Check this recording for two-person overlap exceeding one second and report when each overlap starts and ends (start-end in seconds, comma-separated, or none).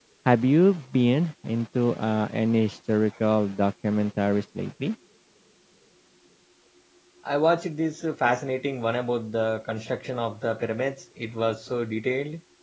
none